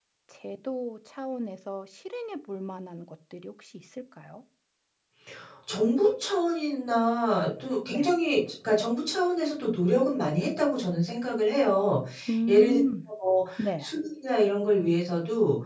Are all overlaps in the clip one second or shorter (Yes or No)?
Yes